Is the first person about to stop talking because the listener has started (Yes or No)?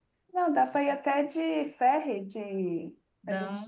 No